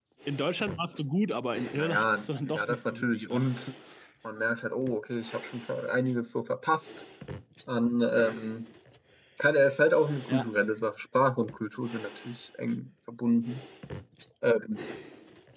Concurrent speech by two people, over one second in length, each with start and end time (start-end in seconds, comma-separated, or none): 1.8-3.5